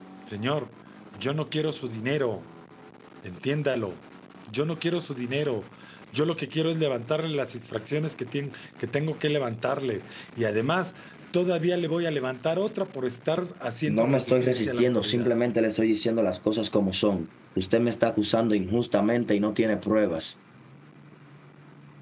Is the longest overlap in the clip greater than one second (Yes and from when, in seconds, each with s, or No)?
Yes, from 13.9 s